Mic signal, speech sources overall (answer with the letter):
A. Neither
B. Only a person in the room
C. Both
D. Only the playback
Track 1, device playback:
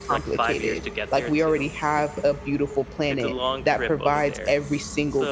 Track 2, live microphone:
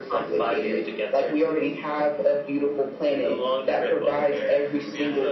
C